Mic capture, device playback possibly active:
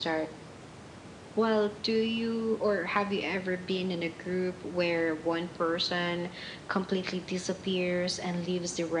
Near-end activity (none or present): none